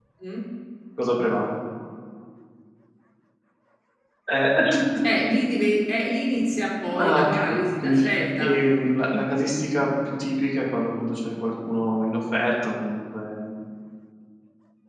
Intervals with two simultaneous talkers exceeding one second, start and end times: 6.9-8.5

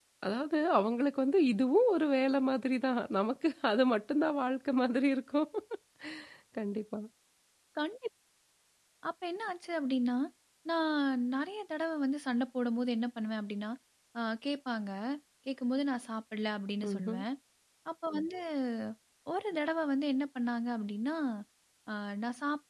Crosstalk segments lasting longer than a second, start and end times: none

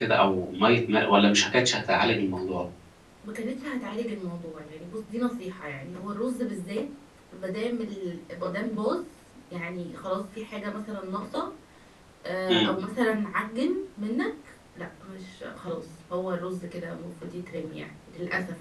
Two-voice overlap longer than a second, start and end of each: none

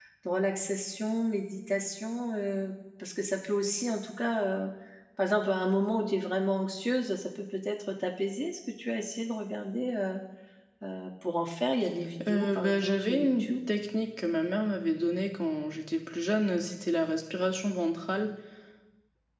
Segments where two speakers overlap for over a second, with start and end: 12.2-13.5

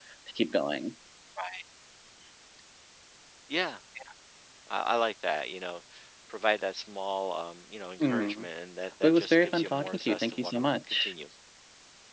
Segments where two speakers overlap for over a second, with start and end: 9.0-11.1

